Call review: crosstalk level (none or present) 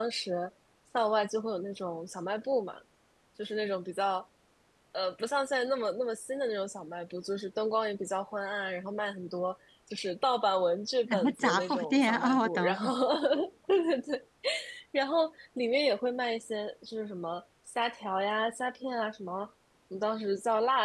present